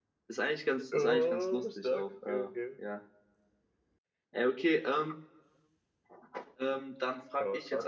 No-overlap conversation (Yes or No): No